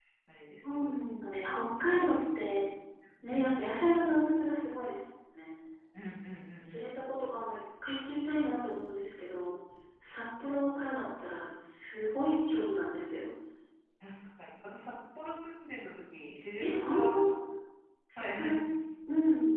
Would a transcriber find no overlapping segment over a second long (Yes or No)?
No